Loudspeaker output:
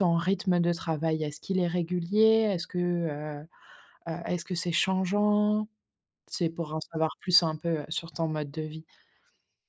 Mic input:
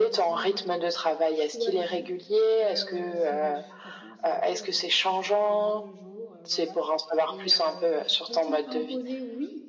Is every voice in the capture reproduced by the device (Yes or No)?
No